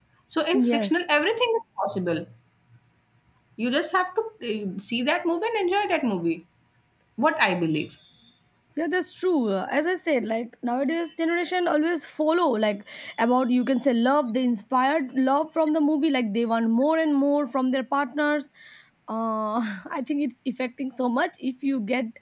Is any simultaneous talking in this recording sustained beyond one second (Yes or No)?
No